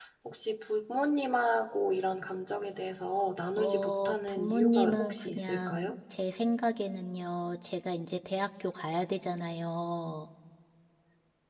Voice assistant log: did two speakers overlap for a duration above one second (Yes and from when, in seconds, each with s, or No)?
Yes, from 3.6 s